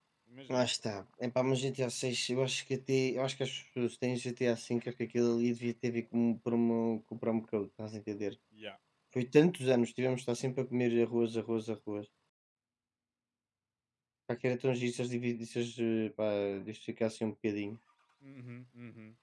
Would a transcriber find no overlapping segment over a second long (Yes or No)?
Yes